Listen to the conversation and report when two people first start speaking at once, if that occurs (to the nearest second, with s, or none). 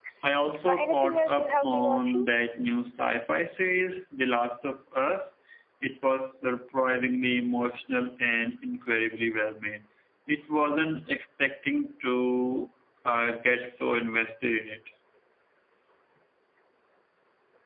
1 s